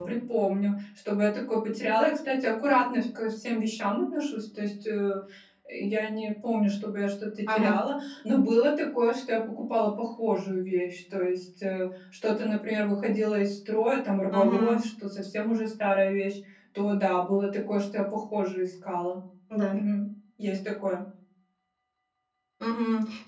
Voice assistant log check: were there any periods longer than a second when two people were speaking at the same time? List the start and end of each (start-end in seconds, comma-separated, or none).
none